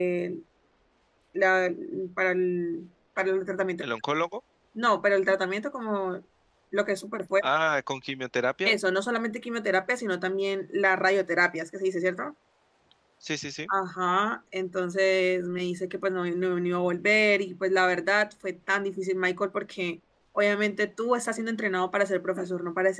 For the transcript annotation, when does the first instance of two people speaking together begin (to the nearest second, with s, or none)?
none